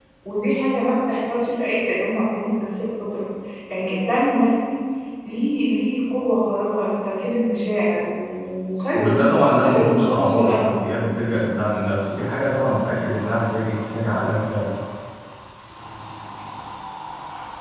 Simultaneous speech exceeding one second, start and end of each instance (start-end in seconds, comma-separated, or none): 8.9-10.8